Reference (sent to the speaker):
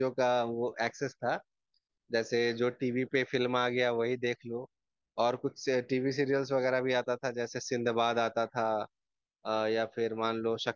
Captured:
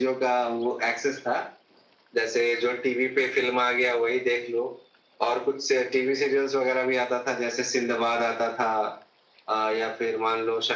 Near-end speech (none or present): none